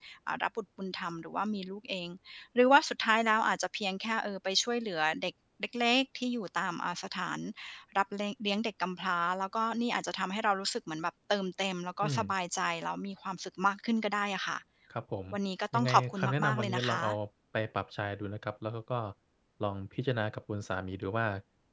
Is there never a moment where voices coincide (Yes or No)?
No